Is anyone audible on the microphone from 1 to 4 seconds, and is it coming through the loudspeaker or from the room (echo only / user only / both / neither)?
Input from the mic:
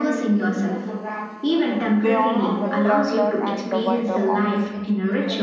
both